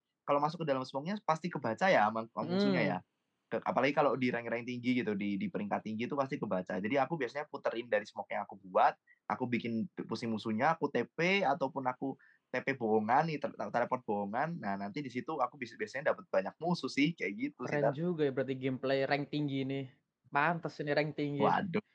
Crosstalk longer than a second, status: none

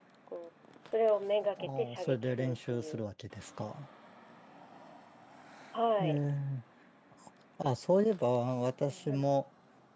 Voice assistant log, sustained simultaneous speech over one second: present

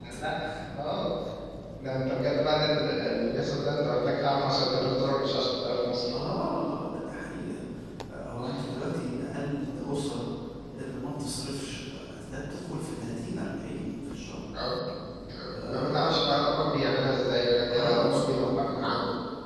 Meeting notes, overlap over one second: present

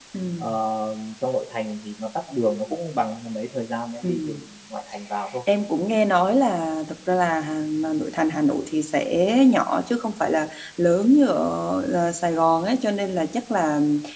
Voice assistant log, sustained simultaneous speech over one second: none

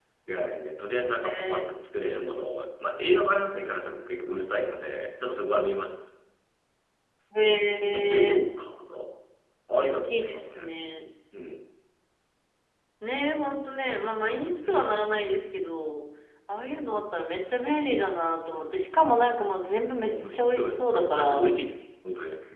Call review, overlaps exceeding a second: present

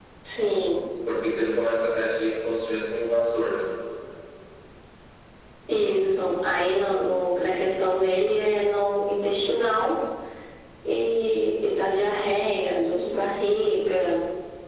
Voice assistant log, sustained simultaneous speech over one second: none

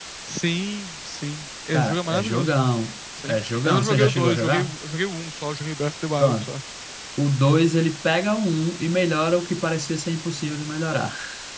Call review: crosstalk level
present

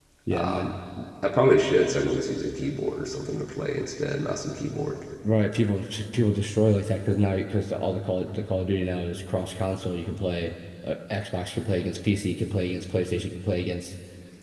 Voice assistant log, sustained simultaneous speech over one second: none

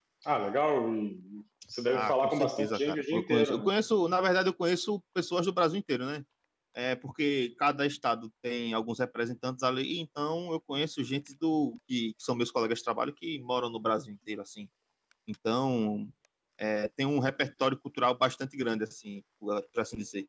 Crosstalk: present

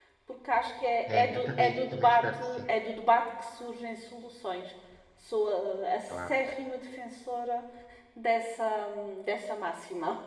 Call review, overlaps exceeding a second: present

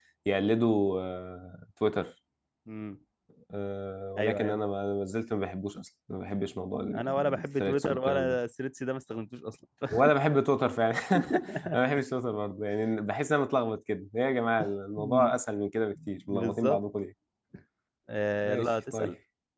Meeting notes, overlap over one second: present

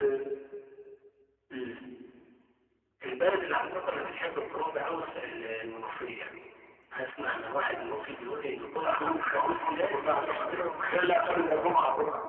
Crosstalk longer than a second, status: present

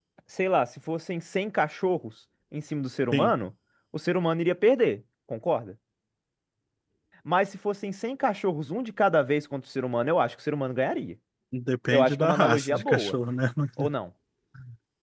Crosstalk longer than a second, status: present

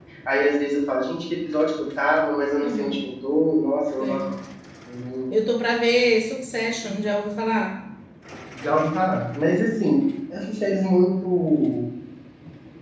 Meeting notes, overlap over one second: none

